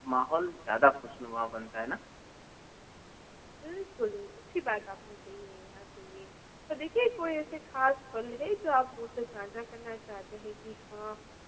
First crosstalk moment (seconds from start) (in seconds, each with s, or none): none